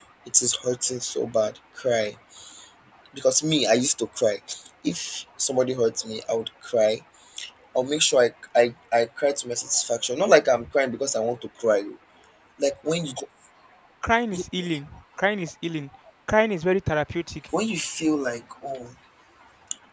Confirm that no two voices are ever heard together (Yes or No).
Yes